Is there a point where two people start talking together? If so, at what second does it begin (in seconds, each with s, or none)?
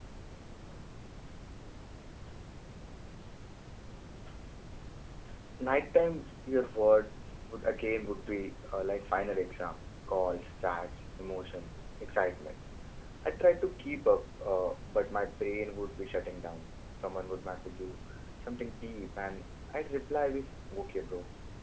none